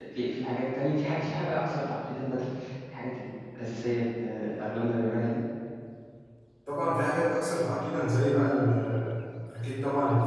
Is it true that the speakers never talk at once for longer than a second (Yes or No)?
Yes